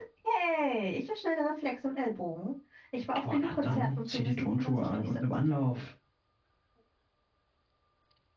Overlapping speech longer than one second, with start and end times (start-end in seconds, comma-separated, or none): 3.3-5.2